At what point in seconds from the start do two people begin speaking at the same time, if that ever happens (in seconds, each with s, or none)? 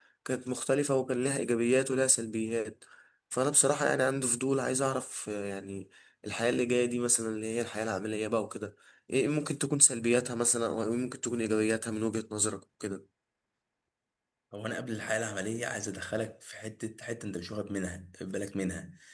none